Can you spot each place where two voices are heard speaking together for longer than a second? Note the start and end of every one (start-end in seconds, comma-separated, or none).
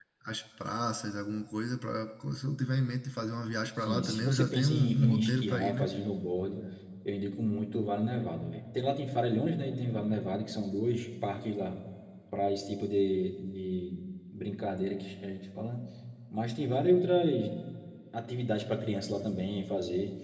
3.8-5.9